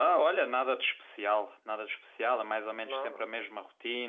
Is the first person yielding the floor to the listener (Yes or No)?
No